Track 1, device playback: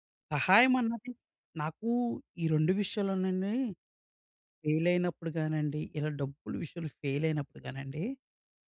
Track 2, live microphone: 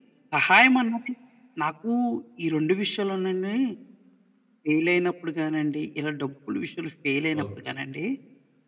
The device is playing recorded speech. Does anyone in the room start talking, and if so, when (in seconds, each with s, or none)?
7.4 s